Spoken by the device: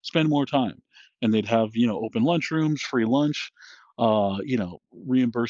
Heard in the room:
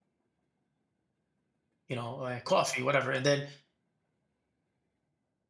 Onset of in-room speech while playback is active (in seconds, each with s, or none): 1.9 s